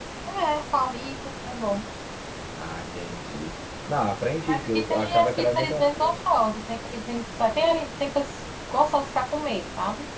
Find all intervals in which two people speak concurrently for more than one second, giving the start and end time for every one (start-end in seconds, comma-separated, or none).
4.5-6.2